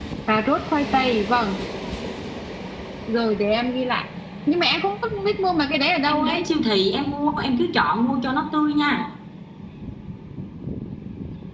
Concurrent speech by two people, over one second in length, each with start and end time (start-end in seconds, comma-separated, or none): none